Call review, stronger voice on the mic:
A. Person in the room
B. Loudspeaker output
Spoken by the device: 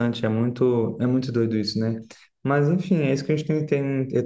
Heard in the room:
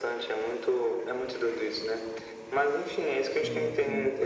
B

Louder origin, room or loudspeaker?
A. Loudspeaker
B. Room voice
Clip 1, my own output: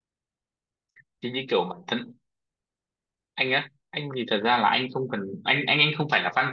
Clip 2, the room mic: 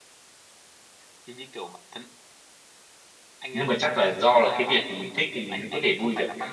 B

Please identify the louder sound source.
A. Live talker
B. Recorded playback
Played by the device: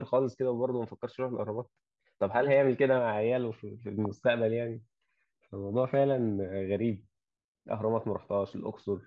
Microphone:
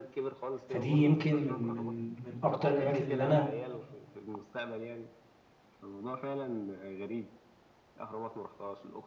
A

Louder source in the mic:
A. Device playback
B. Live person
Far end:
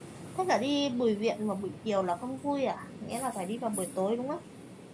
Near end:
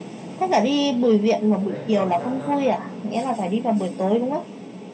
A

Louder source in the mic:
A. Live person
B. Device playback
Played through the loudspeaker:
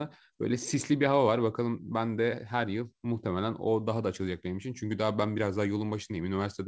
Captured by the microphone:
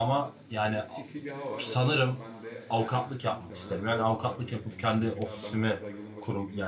A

